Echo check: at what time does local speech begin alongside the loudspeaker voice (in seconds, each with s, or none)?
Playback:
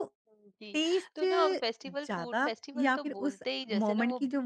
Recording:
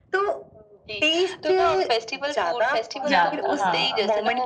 3.0 s